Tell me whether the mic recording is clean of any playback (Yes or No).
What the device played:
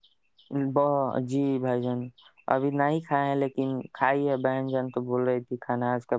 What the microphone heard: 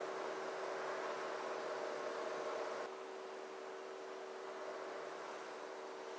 Yes